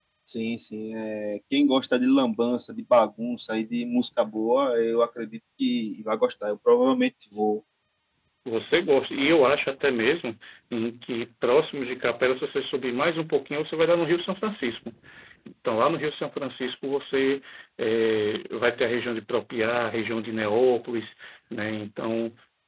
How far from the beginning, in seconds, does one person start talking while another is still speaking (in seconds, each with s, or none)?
none